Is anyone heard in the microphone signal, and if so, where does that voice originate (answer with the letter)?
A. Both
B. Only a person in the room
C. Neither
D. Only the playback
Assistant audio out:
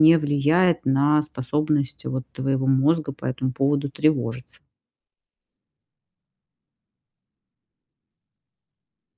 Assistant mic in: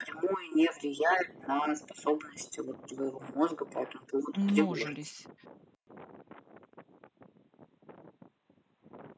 A